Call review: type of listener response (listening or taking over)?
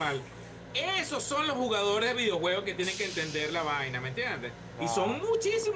listening